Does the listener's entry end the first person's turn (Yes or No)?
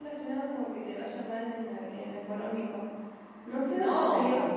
No